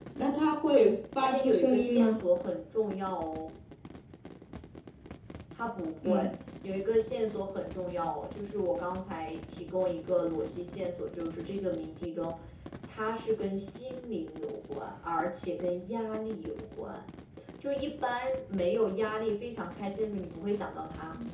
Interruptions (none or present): present